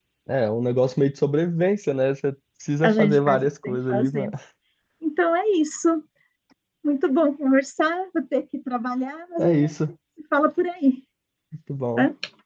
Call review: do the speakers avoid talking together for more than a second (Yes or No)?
No